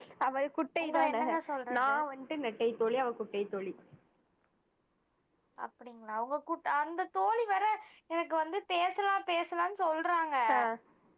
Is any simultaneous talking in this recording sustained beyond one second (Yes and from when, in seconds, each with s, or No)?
No